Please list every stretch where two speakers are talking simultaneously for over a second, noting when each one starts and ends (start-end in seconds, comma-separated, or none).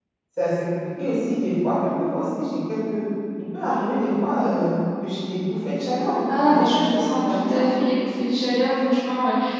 6.3-7.7